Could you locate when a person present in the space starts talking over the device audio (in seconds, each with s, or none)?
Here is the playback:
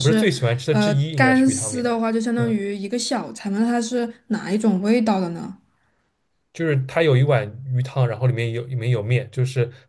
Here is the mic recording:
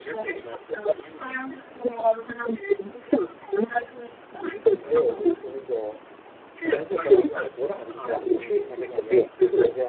4.7 s